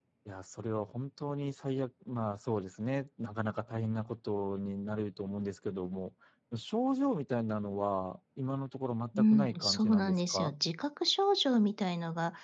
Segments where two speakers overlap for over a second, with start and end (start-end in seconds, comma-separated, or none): 9.2-10.5